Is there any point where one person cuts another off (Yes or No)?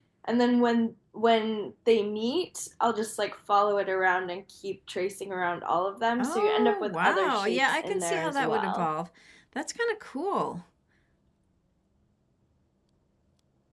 Yes